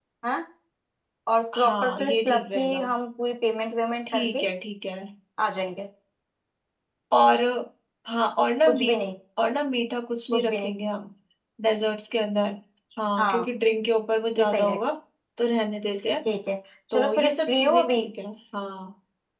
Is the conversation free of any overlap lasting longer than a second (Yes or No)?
No